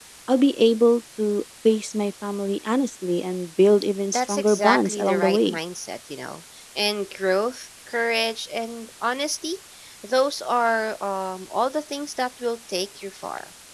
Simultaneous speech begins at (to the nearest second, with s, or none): 4 s